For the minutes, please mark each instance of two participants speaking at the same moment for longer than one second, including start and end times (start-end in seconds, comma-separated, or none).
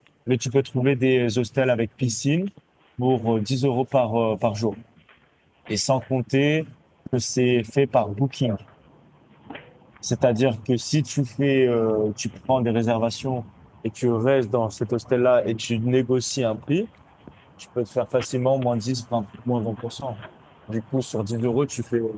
none